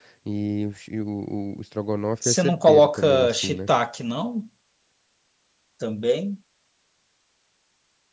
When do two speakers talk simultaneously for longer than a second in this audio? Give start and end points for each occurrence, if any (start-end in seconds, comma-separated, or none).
2.2-3.7